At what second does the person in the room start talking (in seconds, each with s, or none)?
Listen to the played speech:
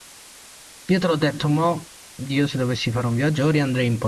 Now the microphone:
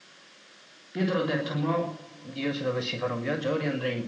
none